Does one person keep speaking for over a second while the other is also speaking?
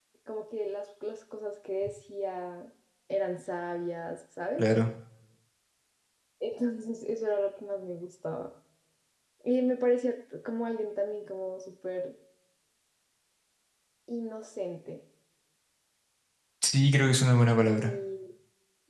No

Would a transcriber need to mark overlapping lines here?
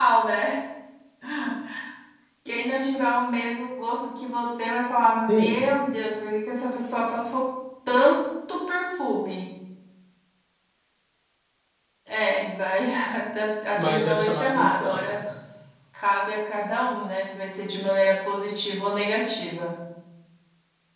Yes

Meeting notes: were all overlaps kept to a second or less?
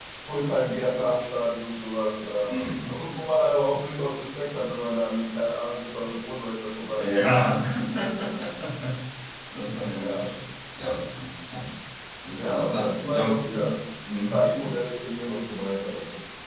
No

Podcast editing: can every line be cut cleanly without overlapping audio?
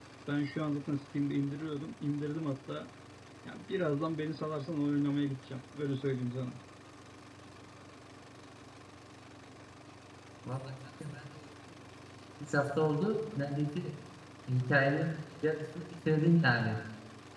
Yes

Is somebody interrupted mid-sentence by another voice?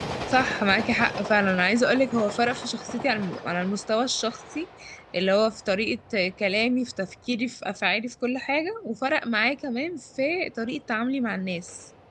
No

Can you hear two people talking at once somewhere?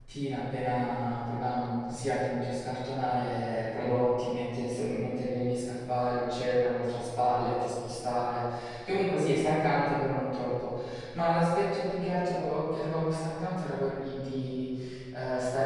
No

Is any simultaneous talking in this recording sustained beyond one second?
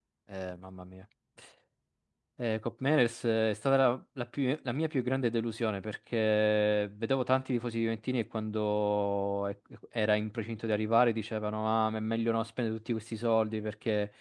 No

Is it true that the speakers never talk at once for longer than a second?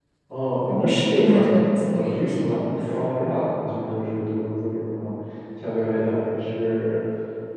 No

